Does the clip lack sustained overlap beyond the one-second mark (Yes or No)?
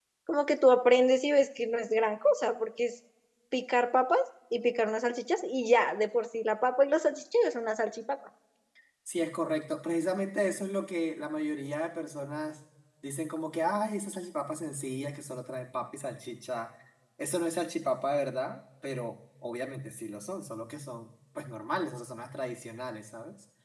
Yes